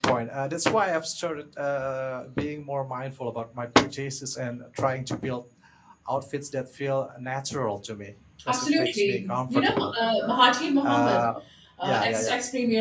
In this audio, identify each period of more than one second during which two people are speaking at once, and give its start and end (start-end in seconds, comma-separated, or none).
8.5-9.9